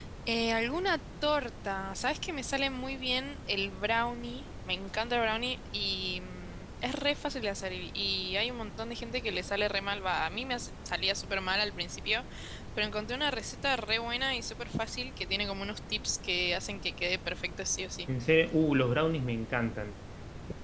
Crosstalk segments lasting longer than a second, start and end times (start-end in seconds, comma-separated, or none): none